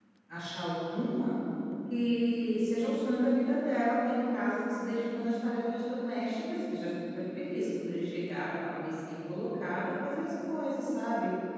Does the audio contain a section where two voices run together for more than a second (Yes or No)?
No